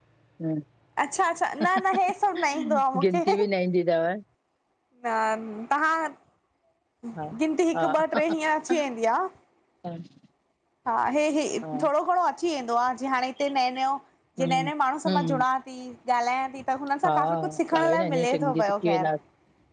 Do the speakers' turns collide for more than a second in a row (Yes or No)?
Yes